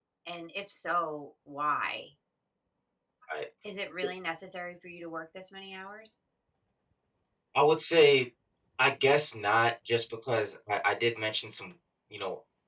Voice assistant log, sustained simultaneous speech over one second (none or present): none